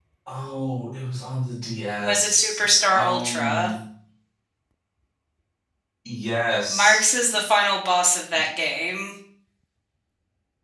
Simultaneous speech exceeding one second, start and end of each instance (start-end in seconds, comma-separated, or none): 2.0-3.7